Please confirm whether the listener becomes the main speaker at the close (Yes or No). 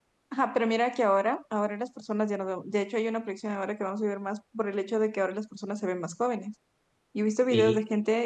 No